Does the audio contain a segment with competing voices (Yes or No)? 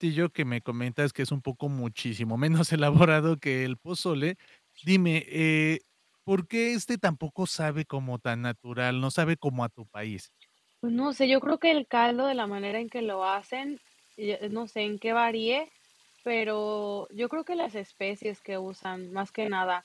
No